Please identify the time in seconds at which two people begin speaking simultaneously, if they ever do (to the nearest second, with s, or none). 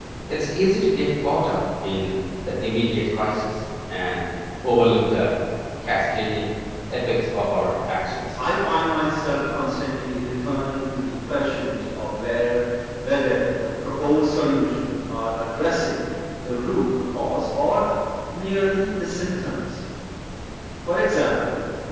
none